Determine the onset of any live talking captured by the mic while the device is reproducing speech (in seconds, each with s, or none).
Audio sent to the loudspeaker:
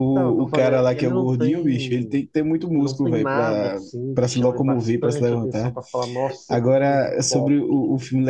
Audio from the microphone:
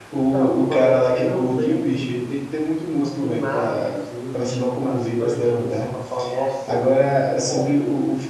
none